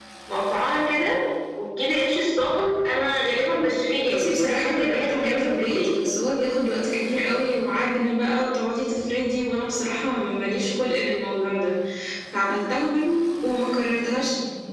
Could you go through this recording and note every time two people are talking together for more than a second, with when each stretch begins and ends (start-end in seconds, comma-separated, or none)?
4.1-5.9